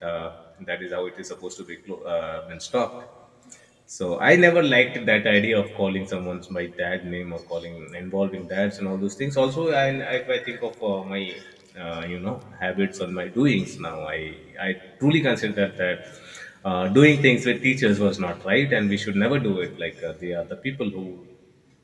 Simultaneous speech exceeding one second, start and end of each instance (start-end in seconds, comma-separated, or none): none